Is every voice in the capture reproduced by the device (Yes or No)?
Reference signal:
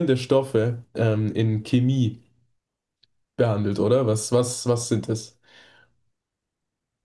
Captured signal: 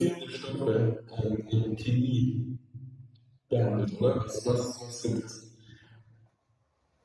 Yes